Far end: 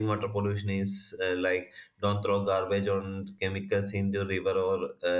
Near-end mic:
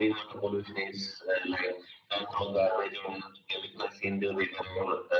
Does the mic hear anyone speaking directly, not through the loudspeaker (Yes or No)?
No